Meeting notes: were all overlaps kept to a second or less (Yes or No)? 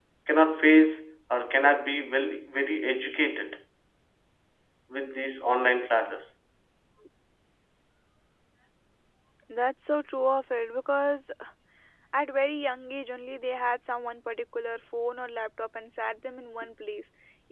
Yes